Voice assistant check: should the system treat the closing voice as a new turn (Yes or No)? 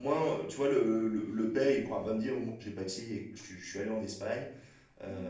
No